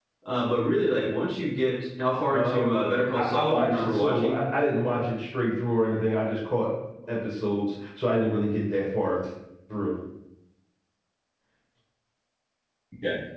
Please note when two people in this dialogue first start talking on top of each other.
2.3 s

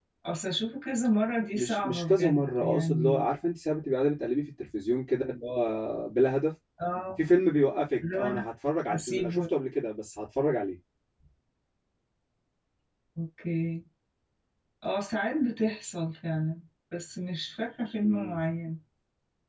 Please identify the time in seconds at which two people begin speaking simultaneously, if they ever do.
1.6 s

